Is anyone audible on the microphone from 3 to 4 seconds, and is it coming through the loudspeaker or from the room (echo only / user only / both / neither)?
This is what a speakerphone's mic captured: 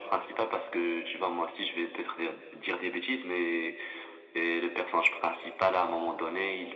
echo only